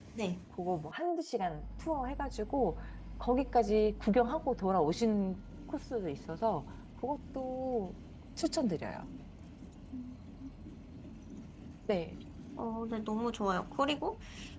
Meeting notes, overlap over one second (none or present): none